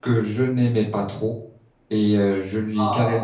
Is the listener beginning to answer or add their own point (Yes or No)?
No